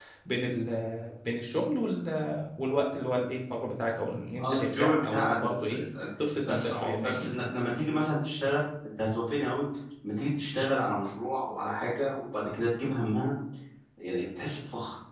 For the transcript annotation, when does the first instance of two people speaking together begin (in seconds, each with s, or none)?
4.4 s